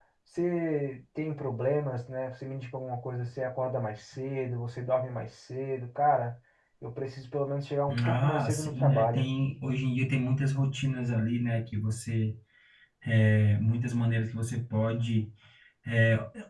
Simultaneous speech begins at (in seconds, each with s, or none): 7.9 s